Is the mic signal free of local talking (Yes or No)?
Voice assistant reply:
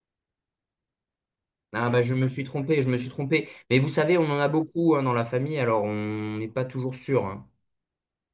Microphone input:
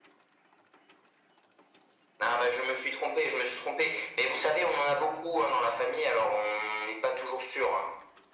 Yes